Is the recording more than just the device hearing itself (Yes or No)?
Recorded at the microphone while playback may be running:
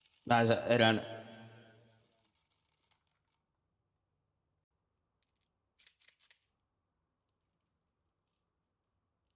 Yes